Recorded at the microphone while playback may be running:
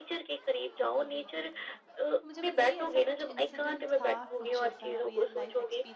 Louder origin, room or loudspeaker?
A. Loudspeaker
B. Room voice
A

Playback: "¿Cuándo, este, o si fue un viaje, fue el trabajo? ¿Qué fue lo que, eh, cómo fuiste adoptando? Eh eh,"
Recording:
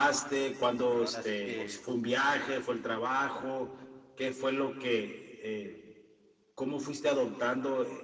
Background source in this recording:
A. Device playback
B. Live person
B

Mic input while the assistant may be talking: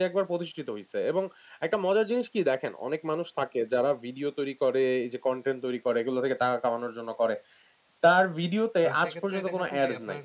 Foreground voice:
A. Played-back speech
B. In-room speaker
A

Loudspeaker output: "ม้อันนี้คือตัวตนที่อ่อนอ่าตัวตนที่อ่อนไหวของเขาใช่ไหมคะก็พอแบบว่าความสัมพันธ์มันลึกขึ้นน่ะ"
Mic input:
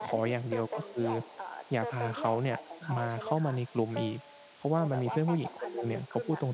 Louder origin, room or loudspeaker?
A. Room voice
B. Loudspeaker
A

